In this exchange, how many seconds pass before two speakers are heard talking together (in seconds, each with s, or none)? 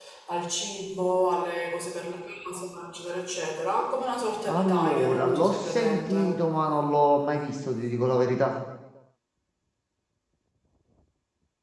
4.5 s